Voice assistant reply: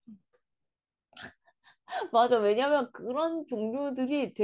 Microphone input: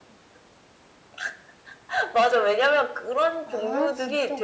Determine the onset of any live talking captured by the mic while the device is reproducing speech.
3.5 s

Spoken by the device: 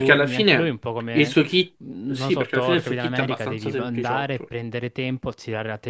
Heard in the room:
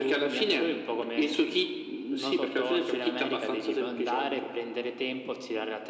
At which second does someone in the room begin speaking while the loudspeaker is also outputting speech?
none

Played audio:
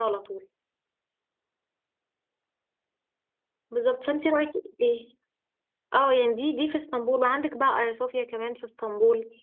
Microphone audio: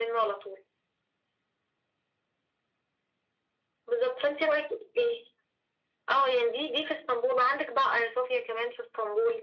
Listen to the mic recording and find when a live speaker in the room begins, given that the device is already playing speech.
none

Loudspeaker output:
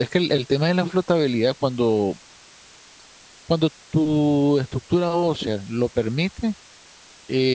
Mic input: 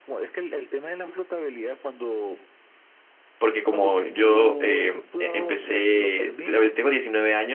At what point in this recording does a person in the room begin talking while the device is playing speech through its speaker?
3.4 s

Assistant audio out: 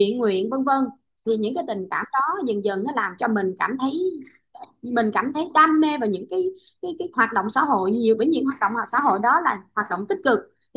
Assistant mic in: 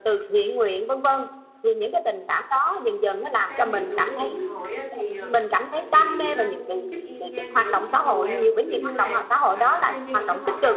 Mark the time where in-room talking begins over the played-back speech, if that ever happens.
3.5 s

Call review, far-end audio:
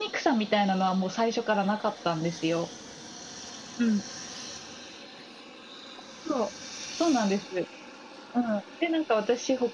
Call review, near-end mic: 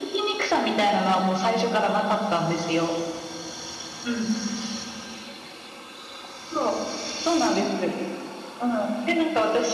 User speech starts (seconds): none

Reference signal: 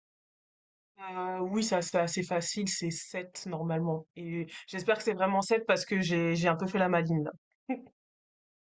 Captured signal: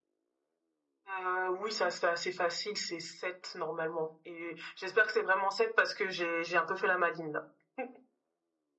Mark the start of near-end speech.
none

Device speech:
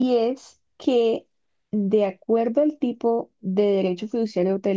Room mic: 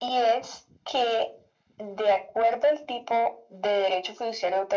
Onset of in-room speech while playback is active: none

